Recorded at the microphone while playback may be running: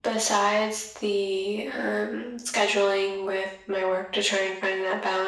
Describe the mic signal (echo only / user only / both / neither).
echo only